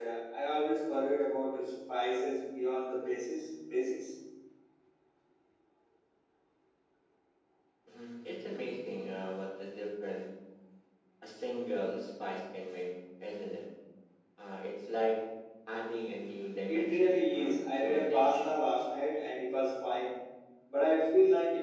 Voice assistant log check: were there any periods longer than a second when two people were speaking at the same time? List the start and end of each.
16.7-18.5

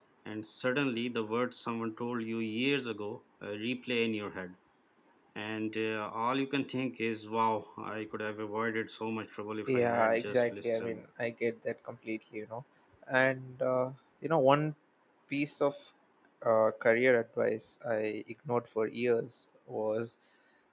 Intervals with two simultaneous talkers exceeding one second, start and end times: 9.7-11.0

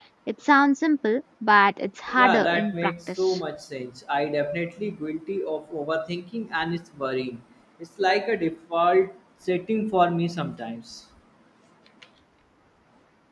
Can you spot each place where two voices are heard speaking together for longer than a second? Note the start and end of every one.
2.2-3.4

